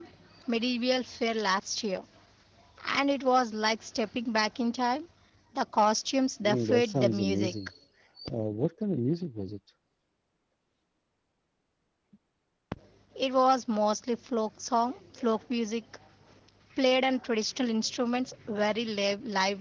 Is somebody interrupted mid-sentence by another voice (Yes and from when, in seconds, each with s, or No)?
Yes, from 6.4 s